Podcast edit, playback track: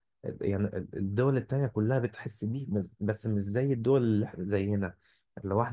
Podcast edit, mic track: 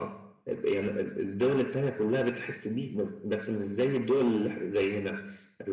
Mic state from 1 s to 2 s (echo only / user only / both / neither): echo only